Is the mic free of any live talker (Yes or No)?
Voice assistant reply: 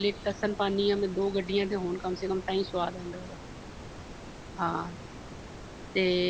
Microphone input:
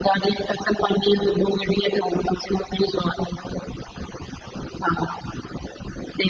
Yes